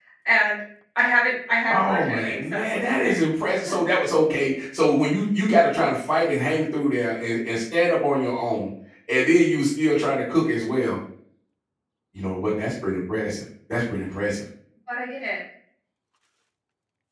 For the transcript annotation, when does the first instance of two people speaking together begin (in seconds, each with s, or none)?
1.7 s